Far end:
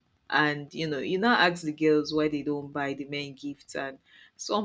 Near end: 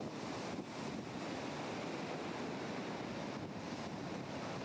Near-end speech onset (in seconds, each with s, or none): none